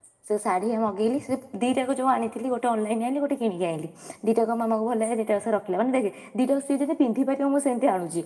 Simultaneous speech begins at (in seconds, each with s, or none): none